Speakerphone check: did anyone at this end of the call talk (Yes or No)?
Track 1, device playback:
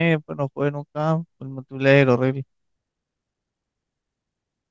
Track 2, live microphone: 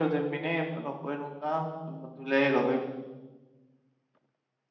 No